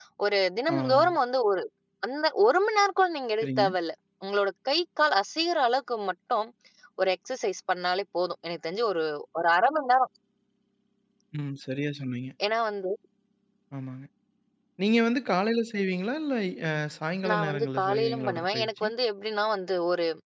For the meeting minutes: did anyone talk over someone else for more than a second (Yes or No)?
Yes